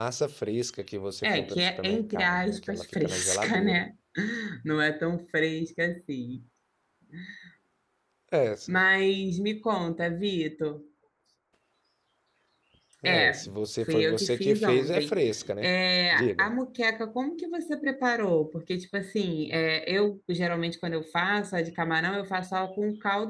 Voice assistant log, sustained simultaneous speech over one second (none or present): present